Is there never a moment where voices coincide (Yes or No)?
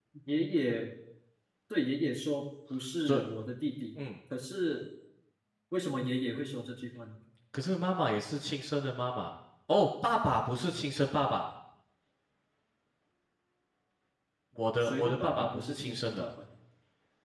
No